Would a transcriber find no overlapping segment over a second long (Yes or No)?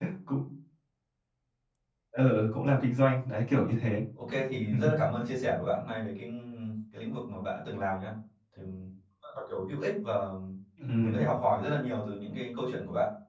Yes